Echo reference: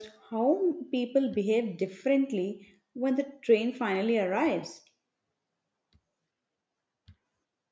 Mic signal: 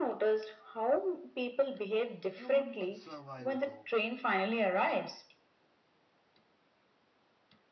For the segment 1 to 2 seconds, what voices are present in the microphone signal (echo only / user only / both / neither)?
echo only